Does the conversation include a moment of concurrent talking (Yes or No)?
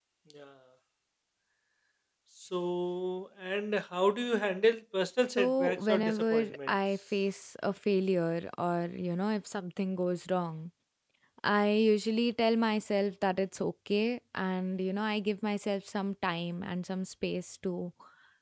Yes